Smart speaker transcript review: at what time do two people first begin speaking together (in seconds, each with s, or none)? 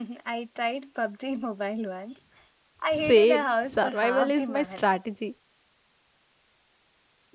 2.9 s